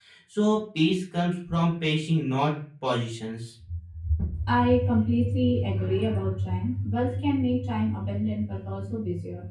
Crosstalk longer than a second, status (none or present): none